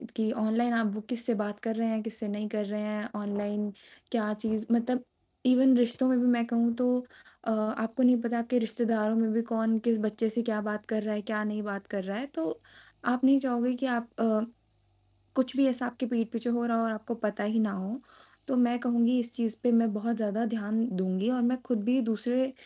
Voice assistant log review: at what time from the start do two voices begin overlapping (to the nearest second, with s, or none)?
none